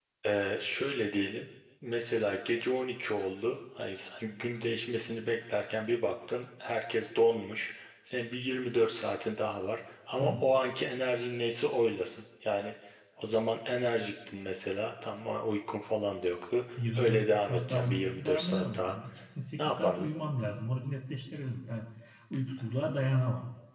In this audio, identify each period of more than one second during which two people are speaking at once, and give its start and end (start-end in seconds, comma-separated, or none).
16.8-19.0